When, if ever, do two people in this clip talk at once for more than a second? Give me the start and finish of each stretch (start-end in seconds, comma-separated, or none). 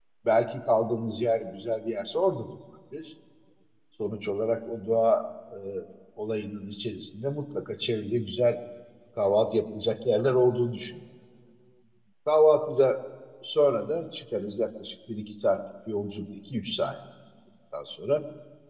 none